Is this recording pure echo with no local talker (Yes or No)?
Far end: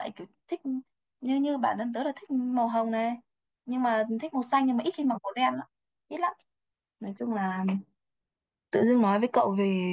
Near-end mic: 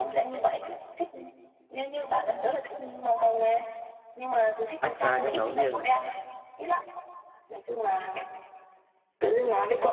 No